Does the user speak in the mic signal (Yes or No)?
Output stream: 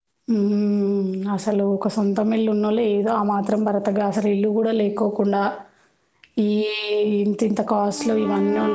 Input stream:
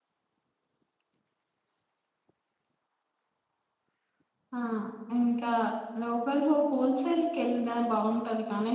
Yes